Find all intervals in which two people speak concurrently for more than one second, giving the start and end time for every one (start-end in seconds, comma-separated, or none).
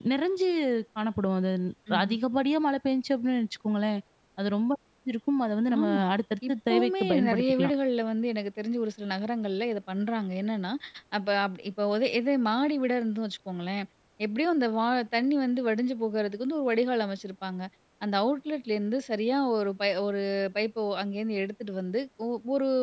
6.5-7.7